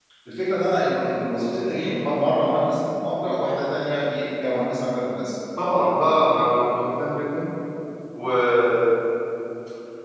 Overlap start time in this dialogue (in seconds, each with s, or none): none